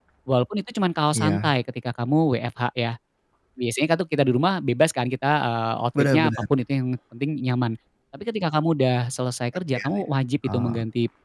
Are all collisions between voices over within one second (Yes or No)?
Yes